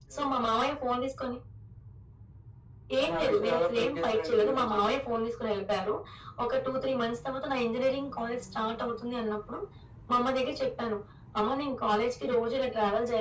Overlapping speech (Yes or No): Yes